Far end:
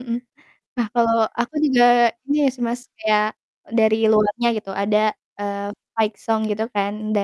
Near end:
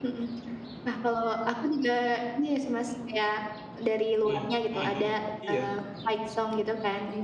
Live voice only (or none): Hmm mhm mhm. Iya.